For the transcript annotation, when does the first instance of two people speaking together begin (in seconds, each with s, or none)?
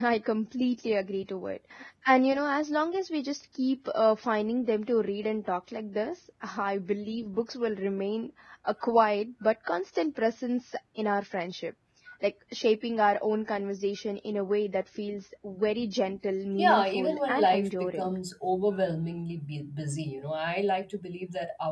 16.6 s